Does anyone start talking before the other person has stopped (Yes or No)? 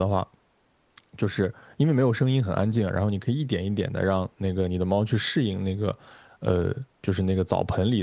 No